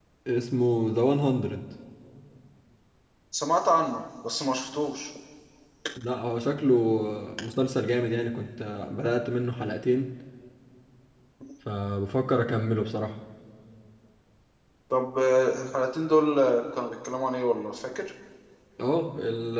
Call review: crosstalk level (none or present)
none